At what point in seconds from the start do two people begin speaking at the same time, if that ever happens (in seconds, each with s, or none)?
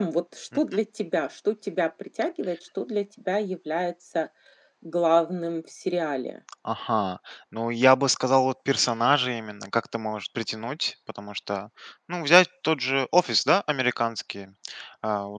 none